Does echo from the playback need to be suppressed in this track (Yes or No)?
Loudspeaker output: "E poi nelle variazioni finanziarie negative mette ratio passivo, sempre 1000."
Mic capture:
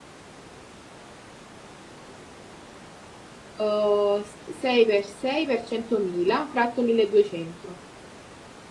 No